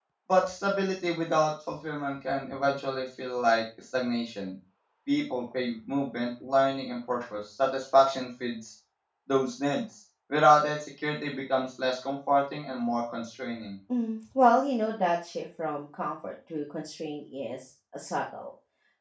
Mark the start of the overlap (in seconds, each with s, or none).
none